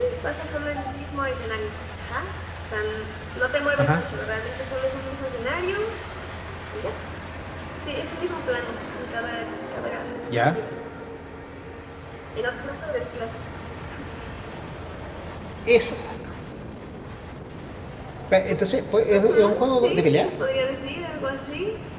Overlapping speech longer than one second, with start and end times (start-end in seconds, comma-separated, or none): 19.0-20.3